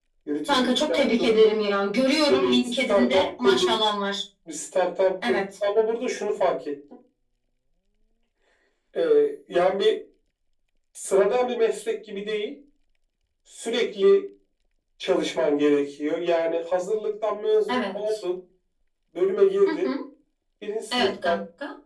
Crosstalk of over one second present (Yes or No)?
Yes